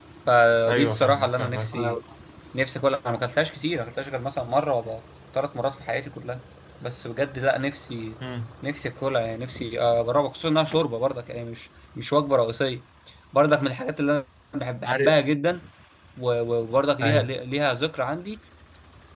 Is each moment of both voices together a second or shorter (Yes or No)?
No